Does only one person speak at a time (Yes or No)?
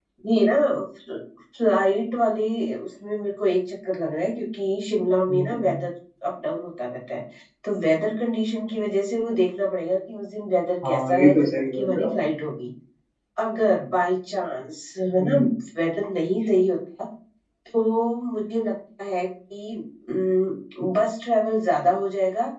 No